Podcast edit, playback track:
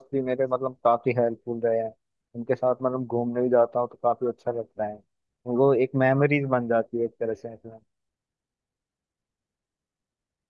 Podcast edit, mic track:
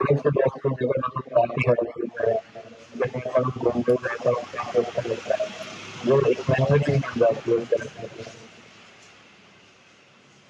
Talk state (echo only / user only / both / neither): echo only